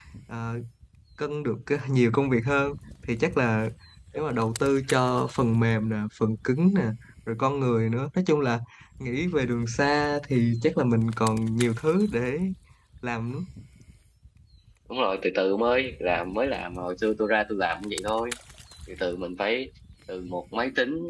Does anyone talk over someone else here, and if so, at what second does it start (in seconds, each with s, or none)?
none